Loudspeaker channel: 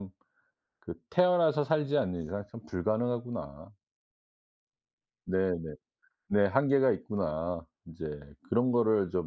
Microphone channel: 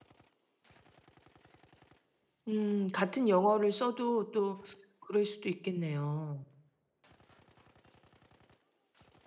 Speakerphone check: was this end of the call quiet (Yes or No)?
No